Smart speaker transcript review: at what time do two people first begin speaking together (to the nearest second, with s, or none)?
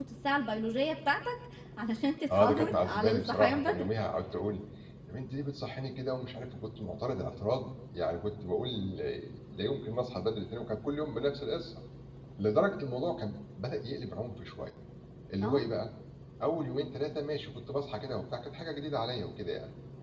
2 s